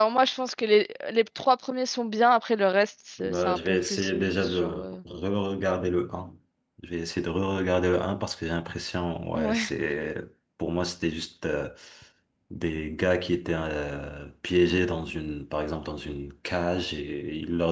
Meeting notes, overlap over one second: present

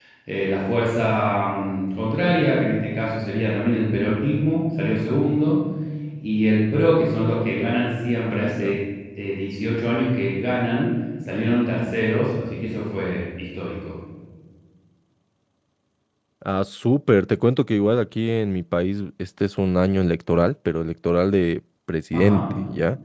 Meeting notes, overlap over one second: none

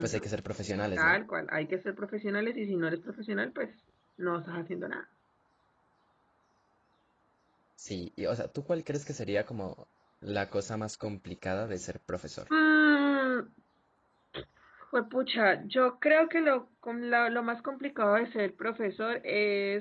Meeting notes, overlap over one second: none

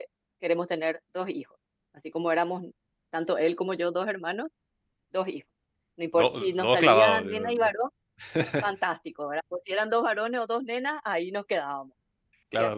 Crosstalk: present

